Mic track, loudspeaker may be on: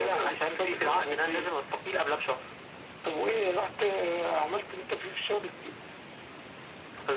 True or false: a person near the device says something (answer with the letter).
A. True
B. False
B